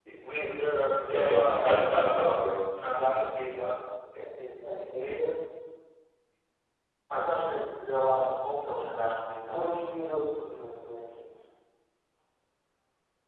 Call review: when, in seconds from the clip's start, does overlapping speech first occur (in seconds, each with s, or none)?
1.0 s